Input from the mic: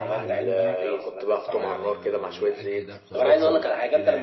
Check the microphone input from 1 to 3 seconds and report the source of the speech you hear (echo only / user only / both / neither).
both